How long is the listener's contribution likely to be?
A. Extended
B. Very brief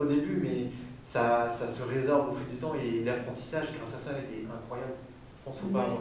A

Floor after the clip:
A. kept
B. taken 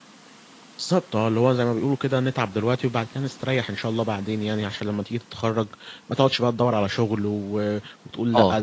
B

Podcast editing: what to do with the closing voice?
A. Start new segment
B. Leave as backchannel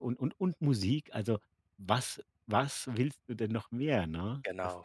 A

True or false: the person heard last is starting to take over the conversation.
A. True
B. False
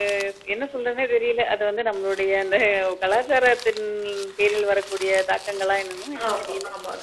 A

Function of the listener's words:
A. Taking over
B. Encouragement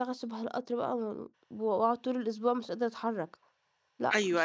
A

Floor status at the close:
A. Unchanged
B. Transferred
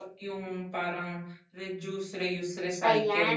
B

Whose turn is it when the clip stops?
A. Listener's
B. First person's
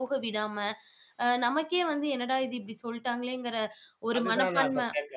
A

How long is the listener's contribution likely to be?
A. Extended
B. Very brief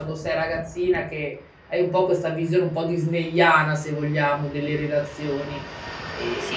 B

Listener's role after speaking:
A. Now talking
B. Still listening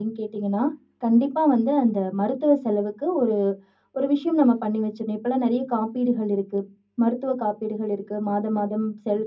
B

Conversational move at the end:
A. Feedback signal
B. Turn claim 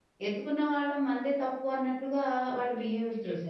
B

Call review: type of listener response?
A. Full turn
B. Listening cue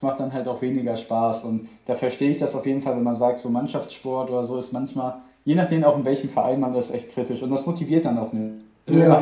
B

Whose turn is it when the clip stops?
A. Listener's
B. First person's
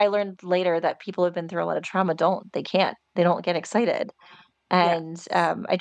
B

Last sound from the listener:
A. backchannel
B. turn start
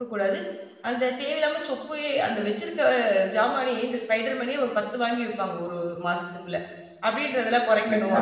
A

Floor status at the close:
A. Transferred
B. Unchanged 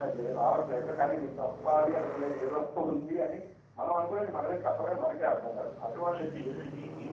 A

